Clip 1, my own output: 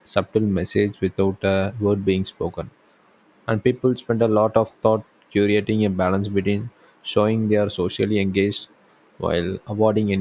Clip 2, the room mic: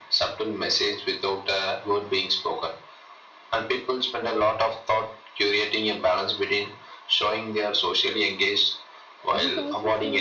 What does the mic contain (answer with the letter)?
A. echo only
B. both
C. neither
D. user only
B